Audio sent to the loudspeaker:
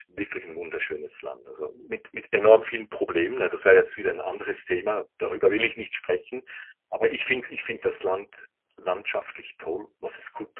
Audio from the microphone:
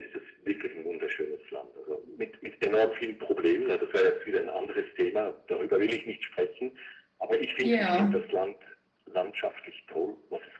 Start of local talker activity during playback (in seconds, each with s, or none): 7.6 s